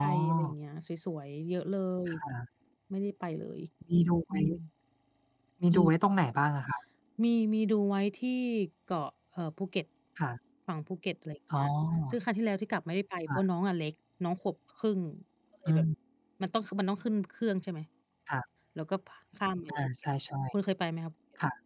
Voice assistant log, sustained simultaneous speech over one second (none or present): none